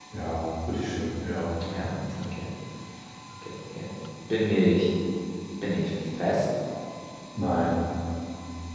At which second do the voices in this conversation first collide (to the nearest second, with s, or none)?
none